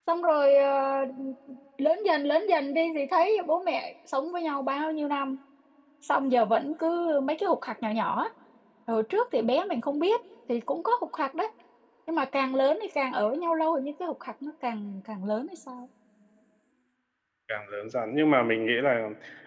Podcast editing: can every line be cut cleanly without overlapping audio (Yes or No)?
Yes